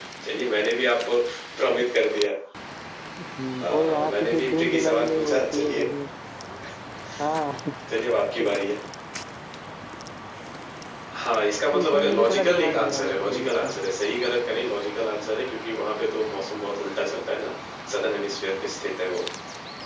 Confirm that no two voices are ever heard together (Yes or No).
No